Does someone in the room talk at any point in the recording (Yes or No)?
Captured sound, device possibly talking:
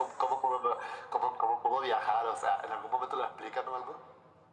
No